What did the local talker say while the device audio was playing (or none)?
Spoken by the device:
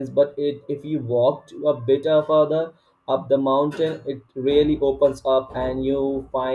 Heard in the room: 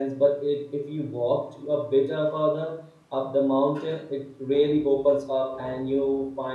none